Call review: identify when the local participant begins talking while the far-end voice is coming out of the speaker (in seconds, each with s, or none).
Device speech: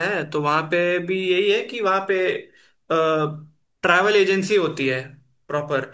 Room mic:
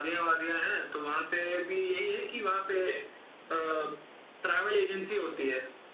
none